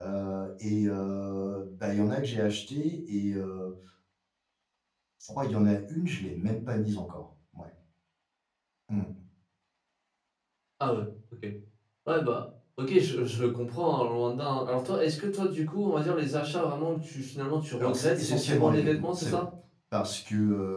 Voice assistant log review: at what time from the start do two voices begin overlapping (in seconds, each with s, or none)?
17.8 s